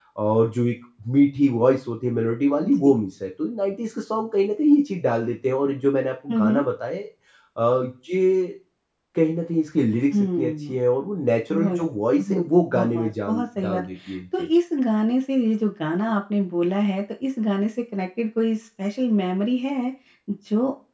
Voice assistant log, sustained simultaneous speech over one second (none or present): present